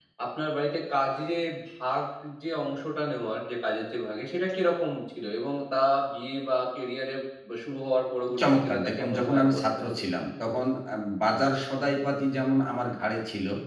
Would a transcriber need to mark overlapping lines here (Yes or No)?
Yes